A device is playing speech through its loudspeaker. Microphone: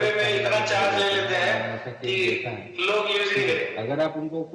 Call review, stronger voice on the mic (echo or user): echo